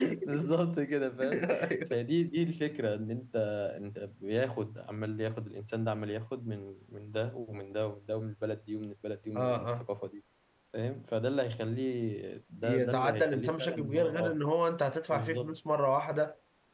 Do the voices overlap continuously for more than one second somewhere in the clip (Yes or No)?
Yes